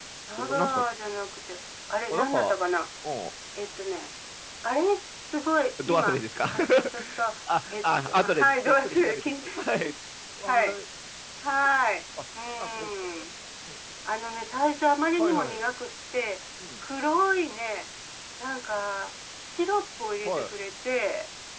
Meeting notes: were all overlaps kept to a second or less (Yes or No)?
No